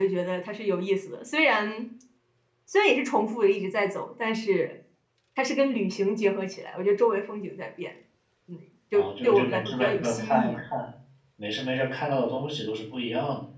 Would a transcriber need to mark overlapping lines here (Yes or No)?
Yes